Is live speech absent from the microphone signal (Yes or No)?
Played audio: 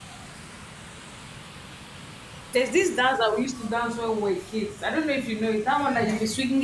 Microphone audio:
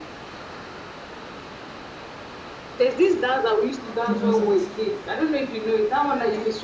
No